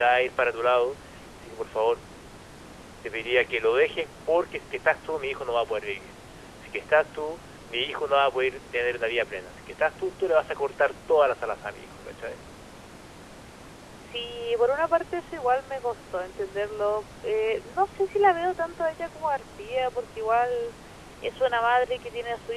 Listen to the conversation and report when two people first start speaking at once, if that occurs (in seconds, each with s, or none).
none